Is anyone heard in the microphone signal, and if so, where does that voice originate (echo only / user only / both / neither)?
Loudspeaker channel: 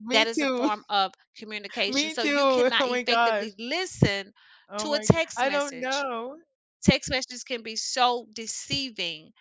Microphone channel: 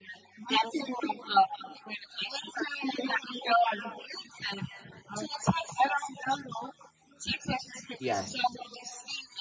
both